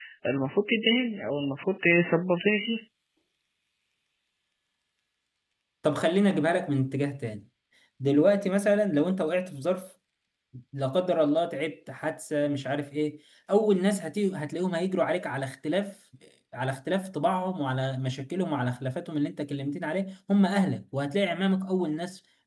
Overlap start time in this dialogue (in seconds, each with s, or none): none